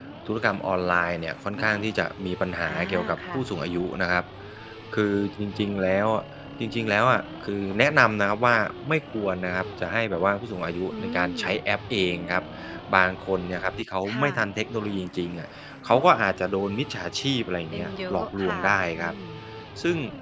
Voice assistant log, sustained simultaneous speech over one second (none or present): present